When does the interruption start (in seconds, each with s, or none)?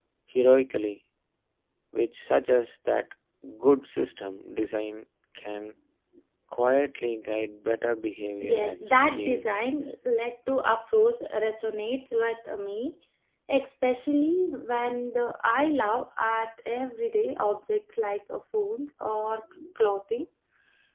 8.4 s